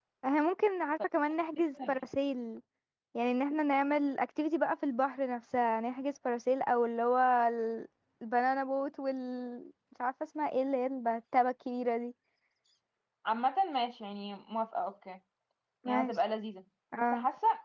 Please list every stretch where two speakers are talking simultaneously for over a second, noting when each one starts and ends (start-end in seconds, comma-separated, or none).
none